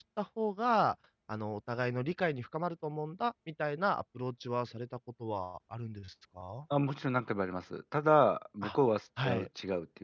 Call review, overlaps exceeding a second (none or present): none